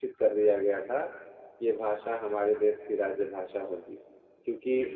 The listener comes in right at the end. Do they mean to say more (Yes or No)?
No